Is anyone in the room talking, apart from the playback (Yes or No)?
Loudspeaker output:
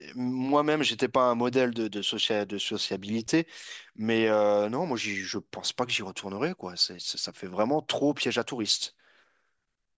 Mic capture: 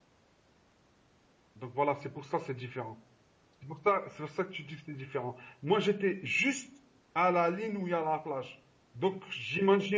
Yes